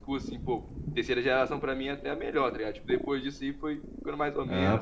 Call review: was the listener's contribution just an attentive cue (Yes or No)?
No